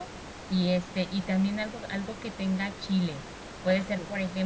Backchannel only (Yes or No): Yes